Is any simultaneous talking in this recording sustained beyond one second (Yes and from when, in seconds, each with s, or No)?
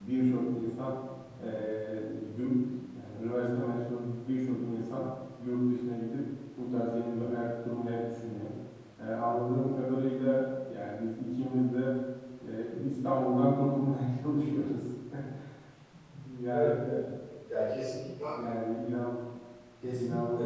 No